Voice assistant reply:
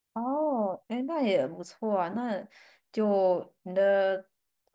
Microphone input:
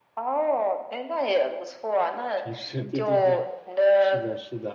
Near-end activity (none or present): present